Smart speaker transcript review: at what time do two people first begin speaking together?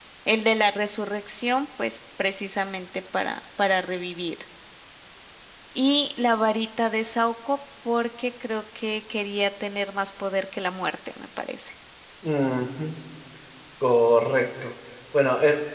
none

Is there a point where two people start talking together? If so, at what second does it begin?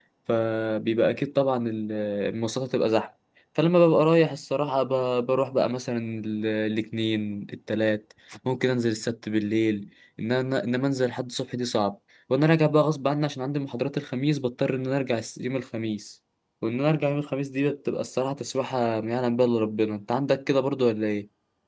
none

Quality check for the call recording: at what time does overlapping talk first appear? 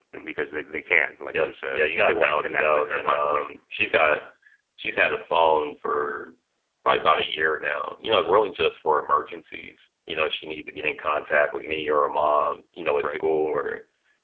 1 s

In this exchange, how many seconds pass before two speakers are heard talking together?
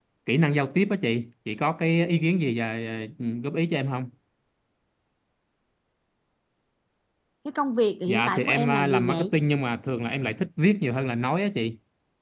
8 s

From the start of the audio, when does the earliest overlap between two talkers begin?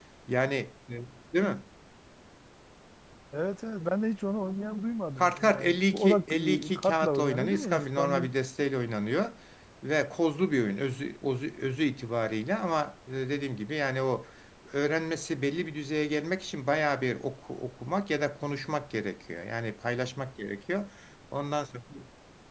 5 s

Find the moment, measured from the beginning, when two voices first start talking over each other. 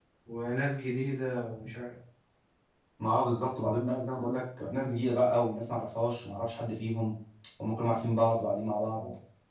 none

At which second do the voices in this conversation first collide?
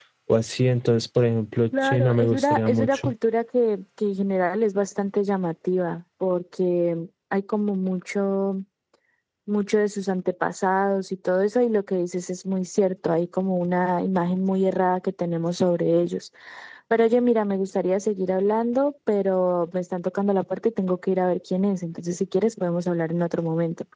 2 s

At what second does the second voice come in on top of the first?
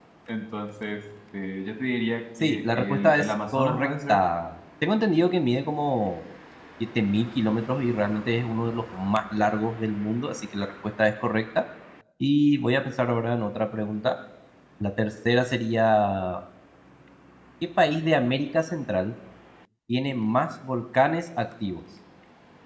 2 s

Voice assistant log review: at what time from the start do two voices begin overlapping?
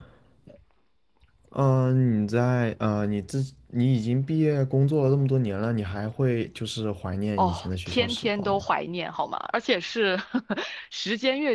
7 s

